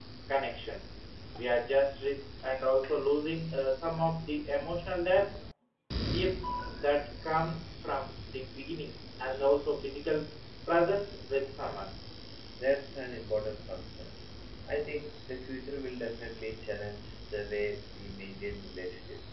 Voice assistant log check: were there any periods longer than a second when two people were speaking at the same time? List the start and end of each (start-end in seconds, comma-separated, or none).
none